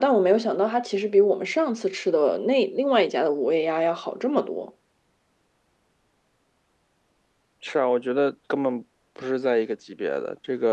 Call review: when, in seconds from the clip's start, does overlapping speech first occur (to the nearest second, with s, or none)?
none